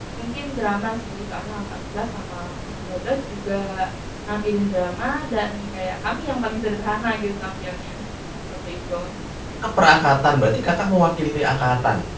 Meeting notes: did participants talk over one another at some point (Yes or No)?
No